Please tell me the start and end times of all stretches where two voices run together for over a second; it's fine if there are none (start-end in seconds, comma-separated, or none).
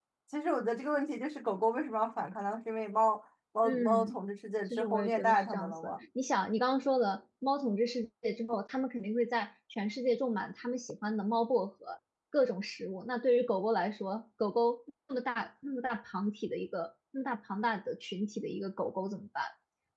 4.7-5.9